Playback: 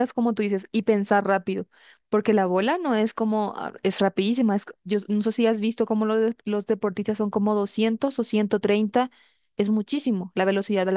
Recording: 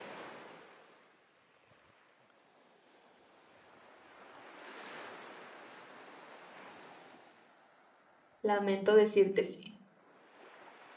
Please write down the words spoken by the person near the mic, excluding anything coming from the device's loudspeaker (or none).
Lamento decirte sí.